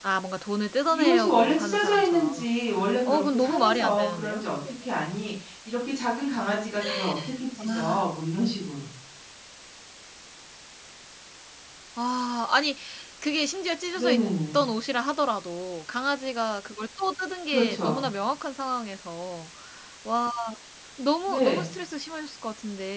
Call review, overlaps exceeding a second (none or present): present